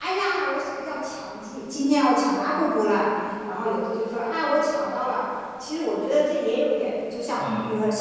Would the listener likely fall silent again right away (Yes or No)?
Yes